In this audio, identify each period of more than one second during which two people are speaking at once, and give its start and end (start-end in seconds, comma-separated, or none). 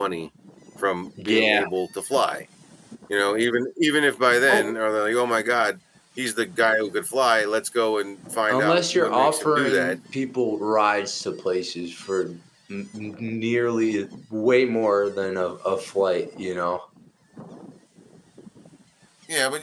8.5-9.9